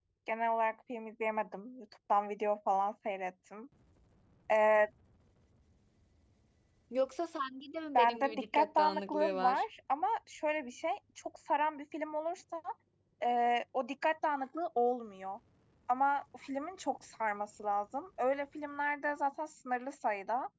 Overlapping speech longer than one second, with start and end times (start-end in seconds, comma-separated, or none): 8.0-9.6